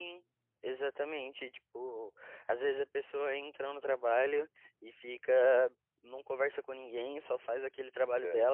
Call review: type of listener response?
listening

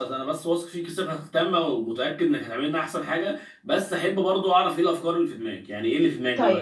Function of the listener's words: taking over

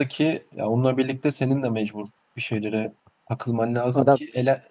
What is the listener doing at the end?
listening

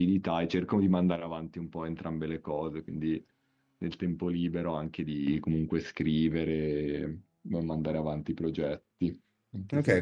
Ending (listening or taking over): taking over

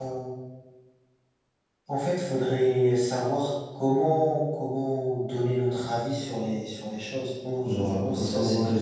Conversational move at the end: taking over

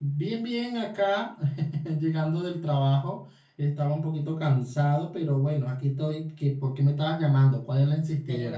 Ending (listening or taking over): taking over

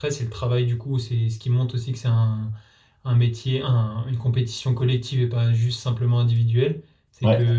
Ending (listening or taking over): listening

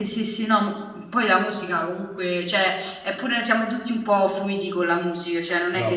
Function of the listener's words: listening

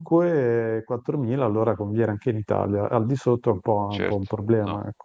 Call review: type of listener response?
taking over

